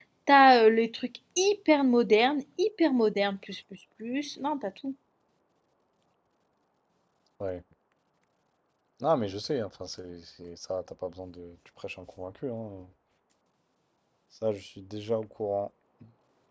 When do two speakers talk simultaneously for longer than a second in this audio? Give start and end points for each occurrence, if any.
none

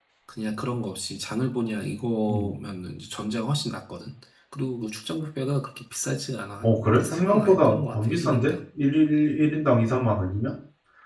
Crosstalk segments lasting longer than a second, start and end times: 6.6-8.5

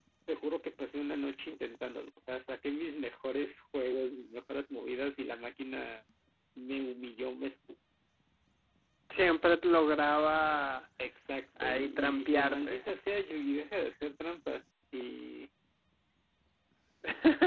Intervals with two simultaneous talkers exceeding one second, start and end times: 11.6-12.8

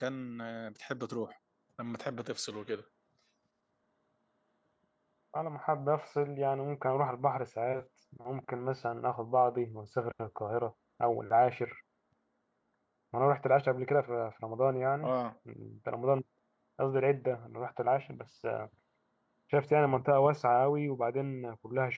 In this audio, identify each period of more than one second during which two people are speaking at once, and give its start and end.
none

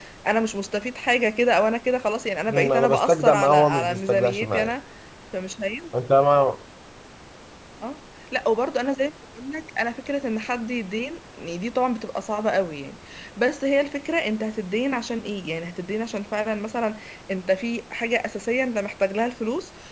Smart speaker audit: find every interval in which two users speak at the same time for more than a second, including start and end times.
2.5-4.7

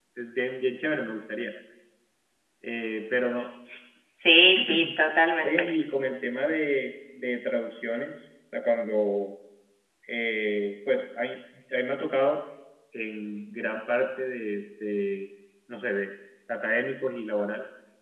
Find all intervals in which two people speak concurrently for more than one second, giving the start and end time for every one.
none

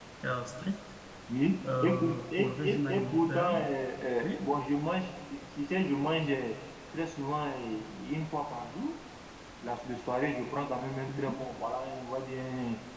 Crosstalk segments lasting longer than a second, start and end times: 1.8-3.5

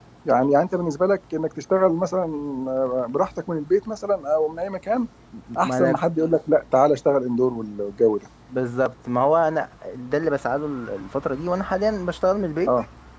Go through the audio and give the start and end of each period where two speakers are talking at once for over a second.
none

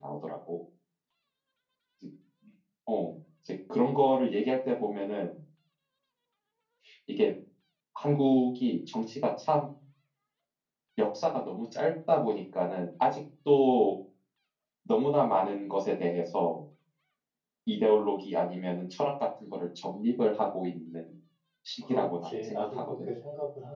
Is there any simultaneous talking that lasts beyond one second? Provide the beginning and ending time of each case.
21.9-23.1

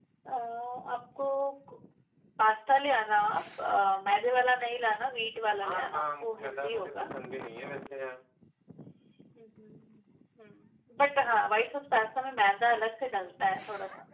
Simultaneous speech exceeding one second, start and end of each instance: 5.6-7.1

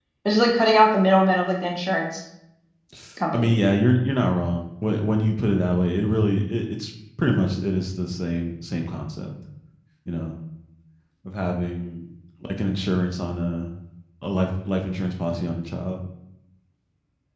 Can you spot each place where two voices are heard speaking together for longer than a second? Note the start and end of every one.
none

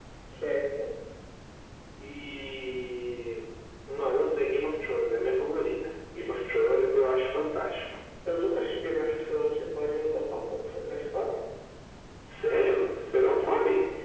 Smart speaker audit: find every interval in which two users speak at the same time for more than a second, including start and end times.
none

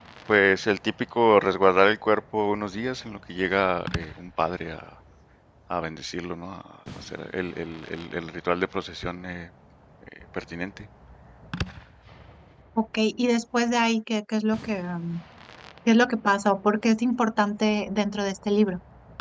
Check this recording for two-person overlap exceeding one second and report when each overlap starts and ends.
none

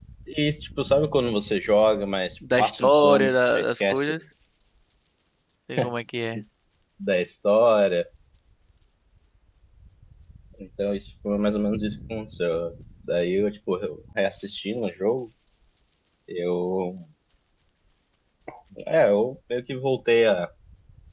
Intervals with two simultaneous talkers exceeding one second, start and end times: 2.6-4.2

